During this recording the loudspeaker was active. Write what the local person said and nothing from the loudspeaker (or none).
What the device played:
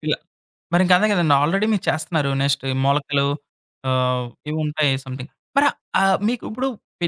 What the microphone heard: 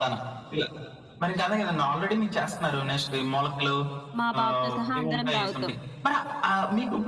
మా బాబుతో సహా అందరం తాగుతాం.